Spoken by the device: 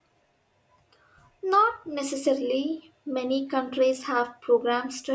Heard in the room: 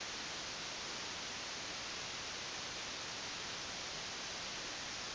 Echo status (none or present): none